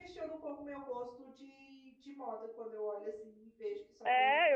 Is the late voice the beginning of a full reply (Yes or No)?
Yes